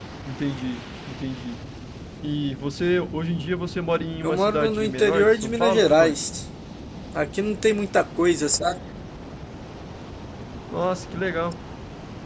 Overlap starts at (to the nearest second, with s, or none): 4 s